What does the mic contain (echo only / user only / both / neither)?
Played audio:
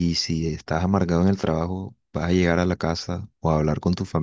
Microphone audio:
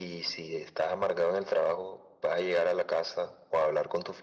echo only